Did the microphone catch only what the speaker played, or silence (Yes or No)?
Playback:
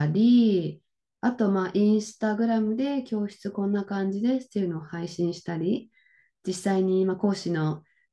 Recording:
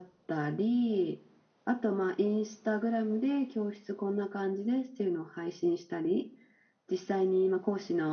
Yes